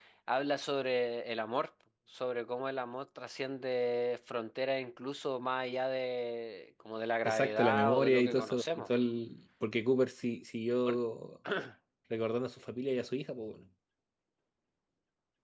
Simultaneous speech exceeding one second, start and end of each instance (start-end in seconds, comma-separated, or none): 7.2-8.9